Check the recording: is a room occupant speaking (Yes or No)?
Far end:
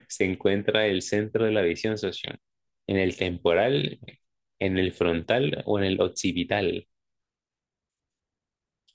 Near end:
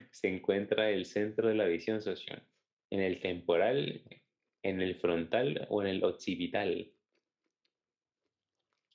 No